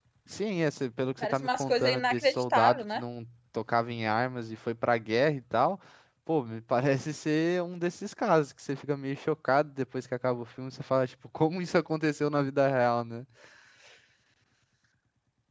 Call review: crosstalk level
present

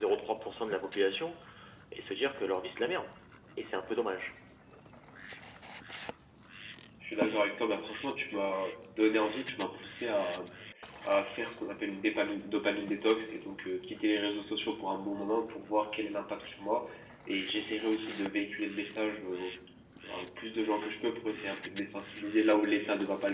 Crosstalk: none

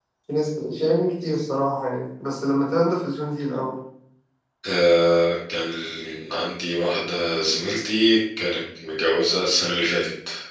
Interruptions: none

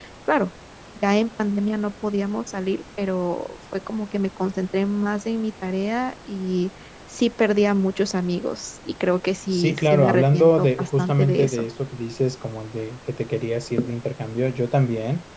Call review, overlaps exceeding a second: present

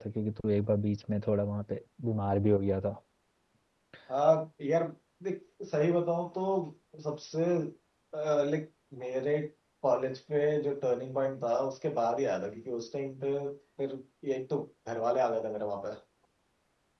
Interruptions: none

